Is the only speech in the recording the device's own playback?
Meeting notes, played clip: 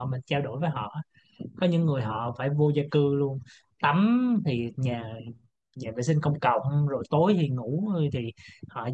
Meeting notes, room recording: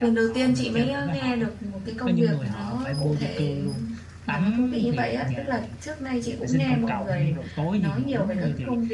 No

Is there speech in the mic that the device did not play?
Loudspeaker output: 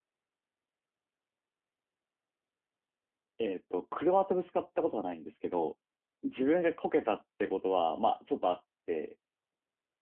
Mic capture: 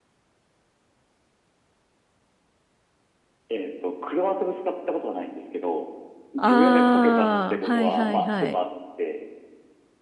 Yes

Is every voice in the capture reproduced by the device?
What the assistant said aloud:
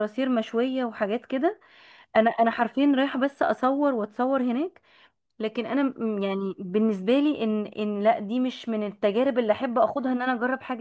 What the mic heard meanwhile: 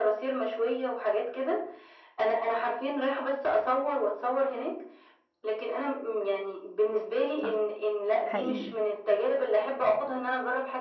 No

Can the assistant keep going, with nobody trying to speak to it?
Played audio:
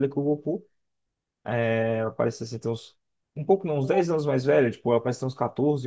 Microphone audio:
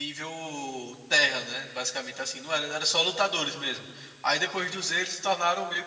No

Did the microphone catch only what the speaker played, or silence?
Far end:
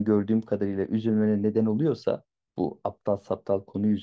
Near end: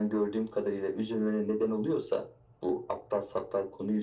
Yes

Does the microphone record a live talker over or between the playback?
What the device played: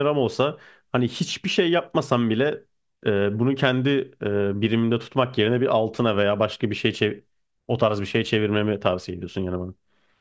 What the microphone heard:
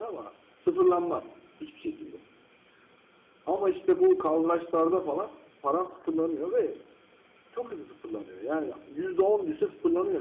Yes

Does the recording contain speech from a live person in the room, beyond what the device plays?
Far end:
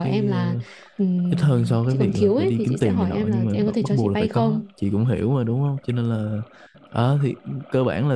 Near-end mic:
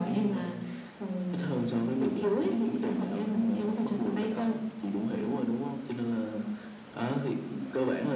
No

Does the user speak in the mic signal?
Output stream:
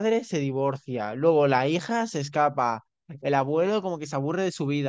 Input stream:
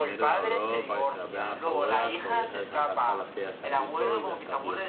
Yes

